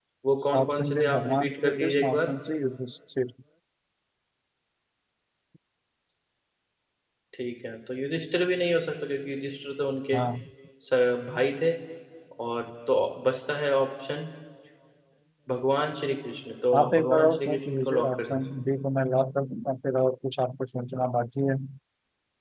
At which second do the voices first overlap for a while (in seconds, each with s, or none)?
0.6 s